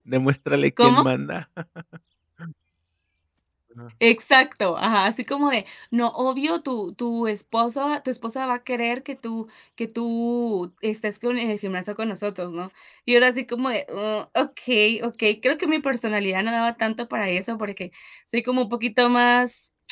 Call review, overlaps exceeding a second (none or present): none